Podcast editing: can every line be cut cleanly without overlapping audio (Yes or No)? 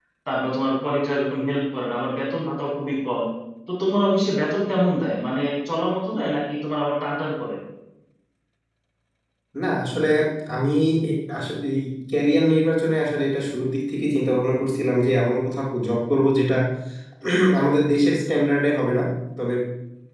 Yes